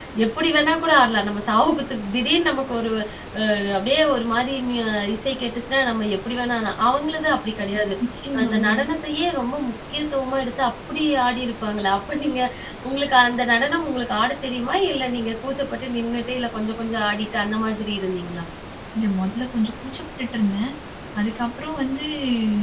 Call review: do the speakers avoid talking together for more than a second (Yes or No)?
Yes